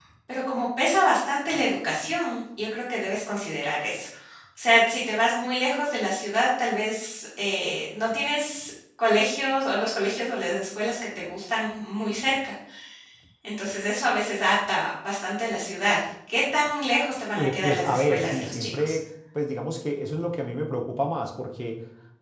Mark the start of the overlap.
17 s

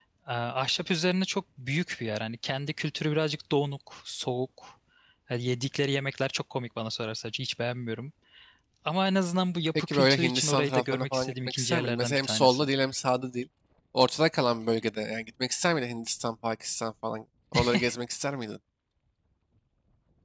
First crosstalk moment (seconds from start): 10 s

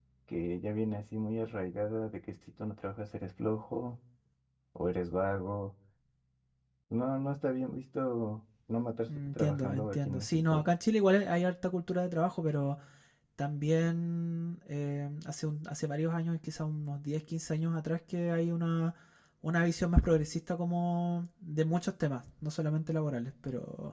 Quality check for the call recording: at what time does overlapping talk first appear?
9 s

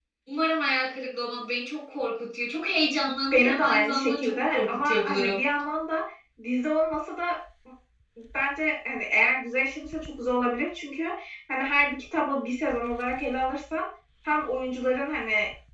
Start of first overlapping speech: 3 s

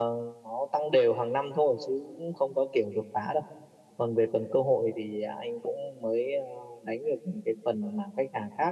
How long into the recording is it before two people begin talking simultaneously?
none

